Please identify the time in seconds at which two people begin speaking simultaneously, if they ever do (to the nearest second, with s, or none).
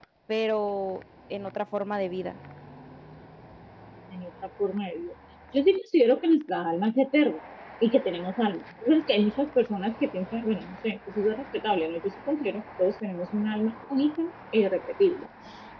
none